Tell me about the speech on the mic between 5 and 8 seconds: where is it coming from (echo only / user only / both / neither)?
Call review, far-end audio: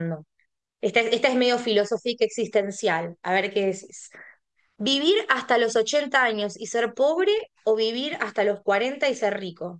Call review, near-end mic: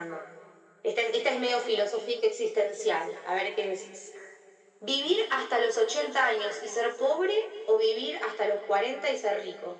echo only